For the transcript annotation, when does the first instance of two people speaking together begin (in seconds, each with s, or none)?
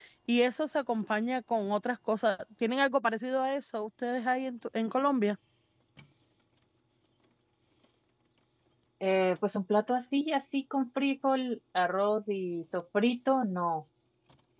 none